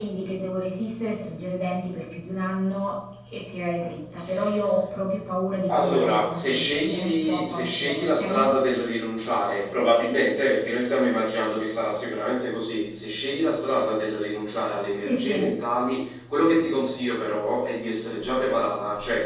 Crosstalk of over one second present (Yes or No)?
Yes